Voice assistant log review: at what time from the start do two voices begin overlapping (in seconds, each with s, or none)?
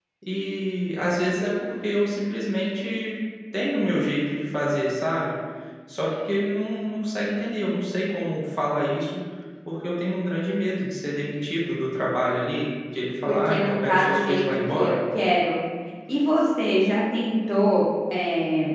13.2 s